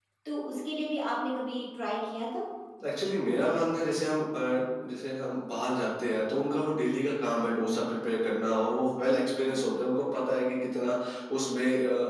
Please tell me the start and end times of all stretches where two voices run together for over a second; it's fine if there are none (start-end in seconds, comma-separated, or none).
none